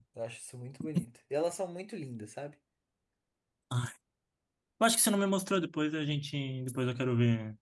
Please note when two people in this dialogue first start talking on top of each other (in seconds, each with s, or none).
none